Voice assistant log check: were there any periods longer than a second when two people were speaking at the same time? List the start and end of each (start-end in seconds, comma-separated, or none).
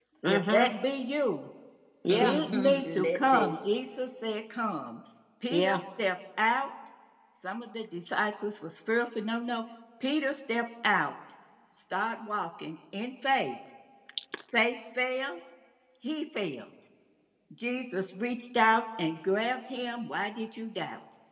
2.1-3.6